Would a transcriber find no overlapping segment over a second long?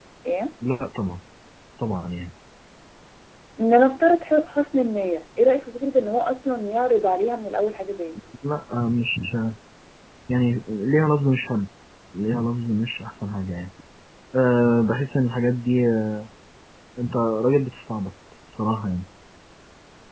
Yes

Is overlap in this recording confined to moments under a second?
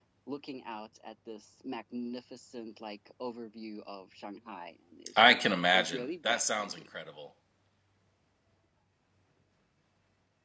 No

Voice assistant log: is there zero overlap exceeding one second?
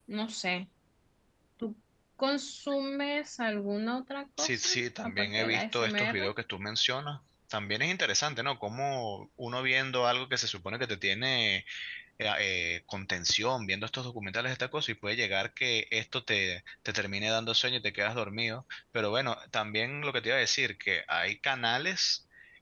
No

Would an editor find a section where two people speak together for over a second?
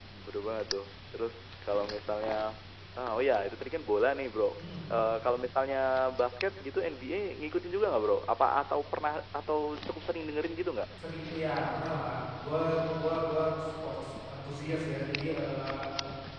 No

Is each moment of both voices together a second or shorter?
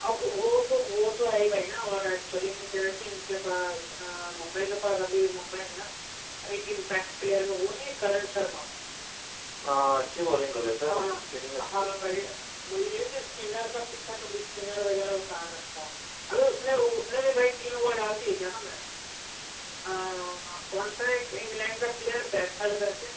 Yes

